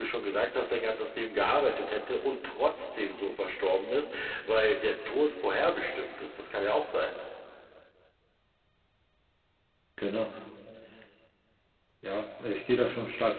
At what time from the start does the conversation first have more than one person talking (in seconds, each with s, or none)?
none